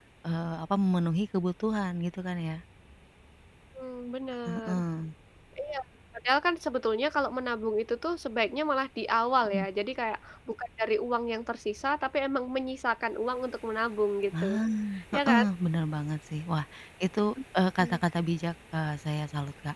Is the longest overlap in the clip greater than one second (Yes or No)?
No